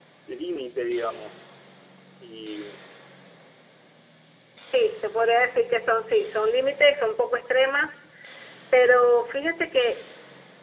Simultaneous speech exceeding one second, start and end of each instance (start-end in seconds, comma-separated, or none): none